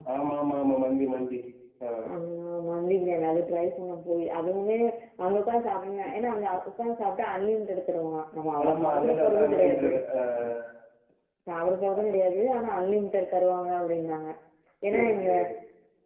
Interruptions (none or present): present